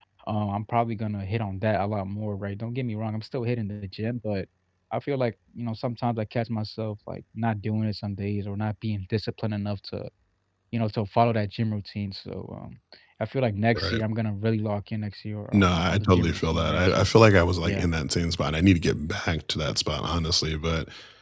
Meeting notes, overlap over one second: present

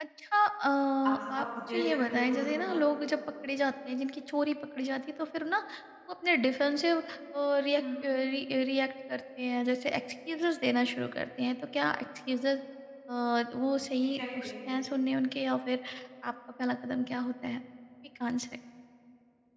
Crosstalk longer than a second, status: present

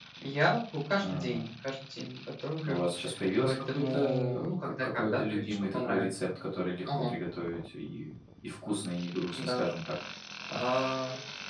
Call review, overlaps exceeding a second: present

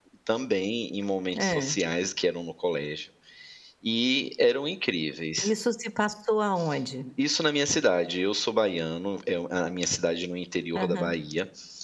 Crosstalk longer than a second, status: none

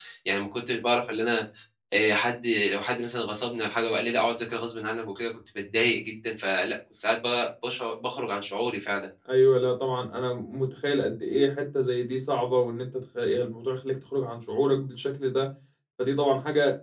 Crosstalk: none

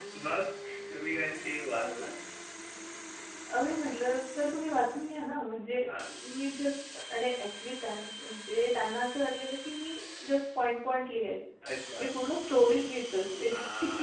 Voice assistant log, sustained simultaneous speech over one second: none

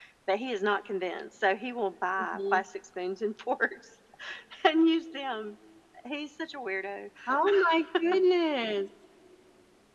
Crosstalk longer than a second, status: none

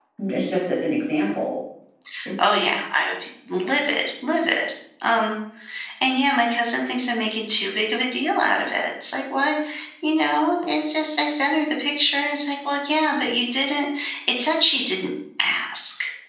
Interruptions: none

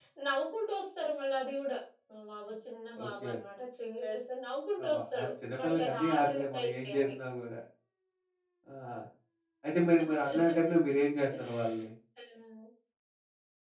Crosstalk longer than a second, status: present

